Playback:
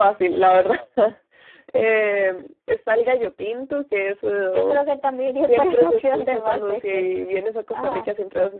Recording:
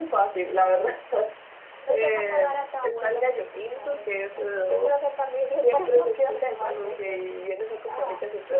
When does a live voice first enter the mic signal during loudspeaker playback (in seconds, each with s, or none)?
1.8 s